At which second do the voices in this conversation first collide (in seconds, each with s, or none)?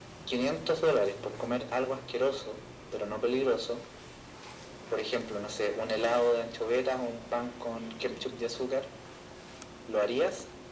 none